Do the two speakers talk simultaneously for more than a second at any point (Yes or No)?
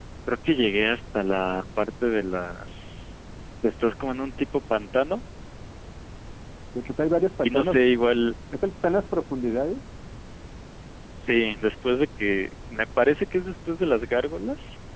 No